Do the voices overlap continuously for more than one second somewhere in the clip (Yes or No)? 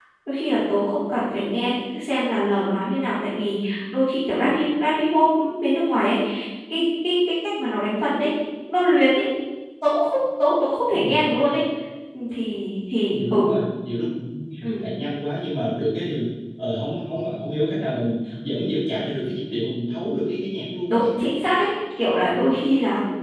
No